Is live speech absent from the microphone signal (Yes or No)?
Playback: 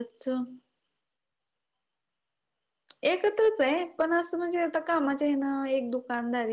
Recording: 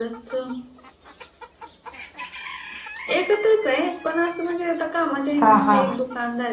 No